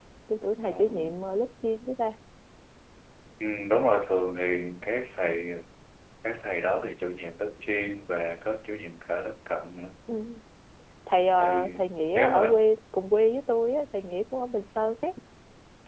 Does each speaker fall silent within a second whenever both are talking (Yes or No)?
Yes